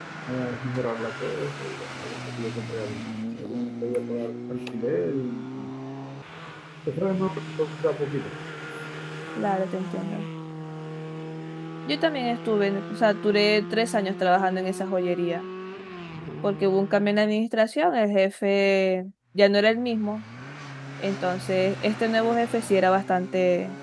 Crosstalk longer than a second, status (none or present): none